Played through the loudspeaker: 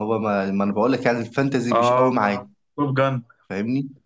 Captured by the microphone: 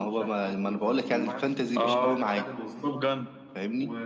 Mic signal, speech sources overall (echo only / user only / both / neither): both